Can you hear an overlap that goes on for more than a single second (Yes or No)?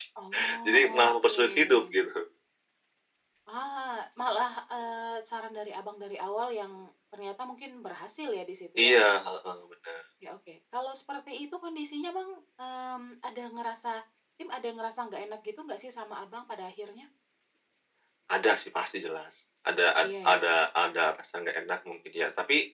Yes